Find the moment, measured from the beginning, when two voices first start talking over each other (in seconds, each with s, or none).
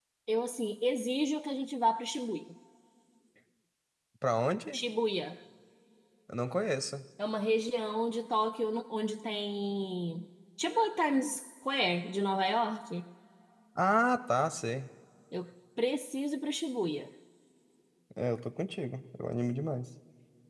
none